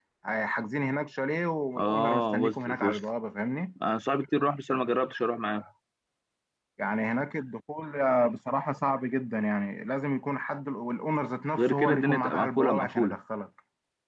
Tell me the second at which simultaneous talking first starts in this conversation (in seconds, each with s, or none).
1.8 s